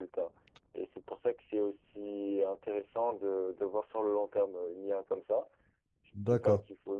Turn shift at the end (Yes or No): No